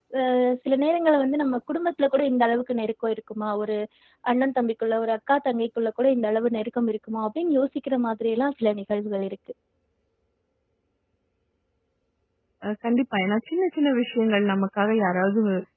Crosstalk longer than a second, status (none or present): none